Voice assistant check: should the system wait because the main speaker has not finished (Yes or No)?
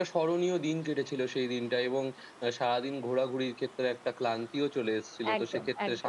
Yes